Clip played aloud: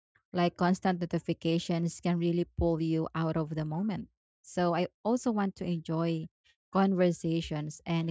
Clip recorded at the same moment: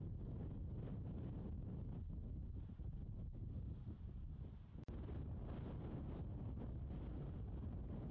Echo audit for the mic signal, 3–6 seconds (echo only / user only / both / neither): neither